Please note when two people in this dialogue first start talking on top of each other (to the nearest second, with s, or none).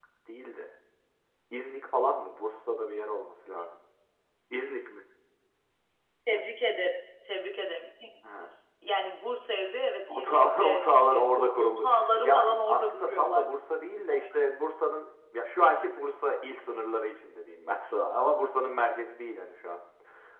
10 s